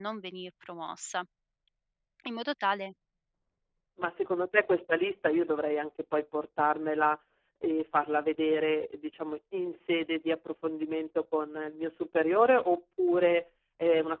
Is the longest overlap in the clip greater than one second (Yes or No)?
No